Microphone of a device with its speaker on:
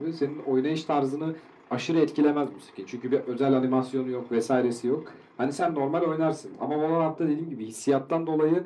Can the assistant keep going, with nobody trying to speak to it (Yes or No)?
Yes